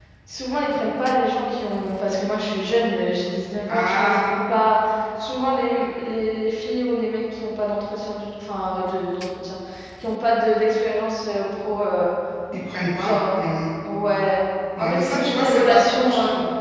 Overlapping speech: Yes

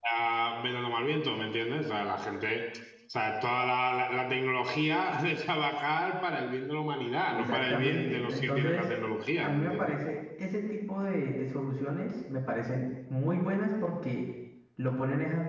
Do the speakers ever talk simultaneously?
Yes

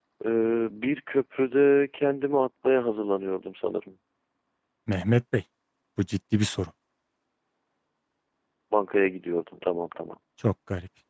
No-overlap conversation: Yes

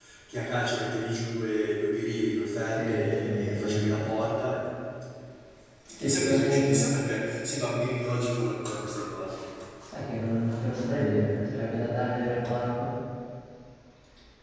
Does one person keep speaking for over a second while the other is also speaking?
Yes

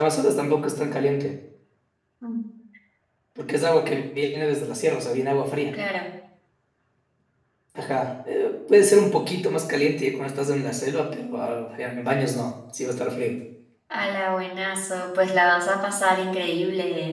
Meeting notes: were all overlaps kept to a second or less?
Yes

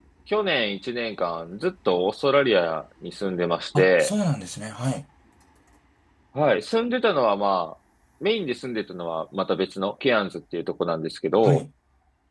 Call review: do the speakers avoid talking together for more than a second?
Yes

